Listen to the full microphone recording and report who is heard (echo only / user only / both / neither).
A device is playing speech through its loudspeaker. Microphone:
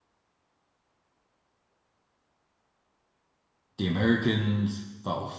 user only